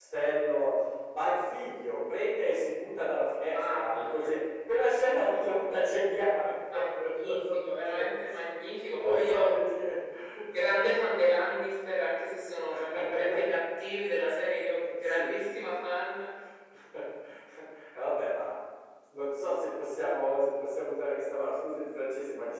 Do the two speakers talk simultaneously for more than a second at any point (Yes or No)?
Yes